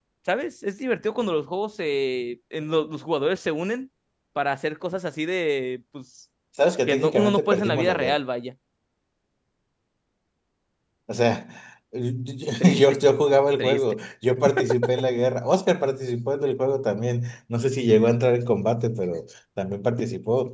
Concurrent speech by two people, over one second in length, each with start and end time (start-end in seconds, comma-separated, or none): 6.9-8.2